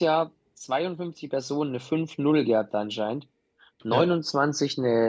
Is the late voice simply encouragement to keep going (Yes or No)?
Yes